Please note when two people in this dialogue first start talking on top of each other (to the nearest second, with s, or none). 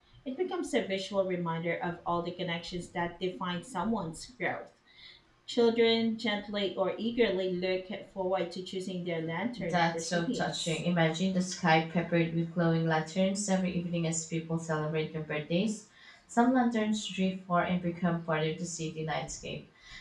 10 s